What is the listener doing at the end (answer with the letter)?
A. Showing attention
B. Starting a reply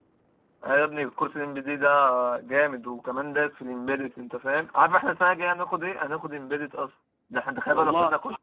A